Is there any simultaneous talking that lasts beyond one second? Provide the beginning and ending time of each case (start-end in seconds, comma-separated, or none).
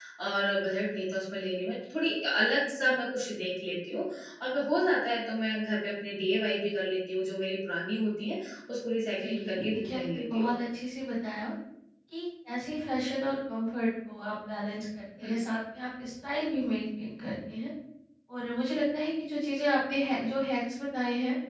9.2-10.5